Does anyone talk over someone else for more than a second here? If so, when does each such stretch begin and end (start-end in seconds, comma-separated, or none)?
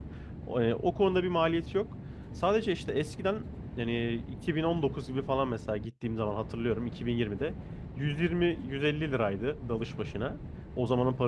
none